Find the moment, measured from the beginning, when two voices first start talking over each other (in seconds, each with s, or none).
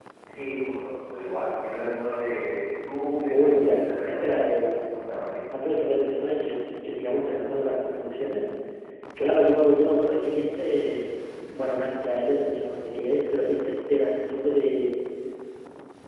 3.3 s